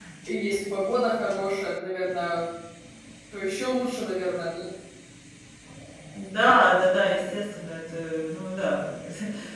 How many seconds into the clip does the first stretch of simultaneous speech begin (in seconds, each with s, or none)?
none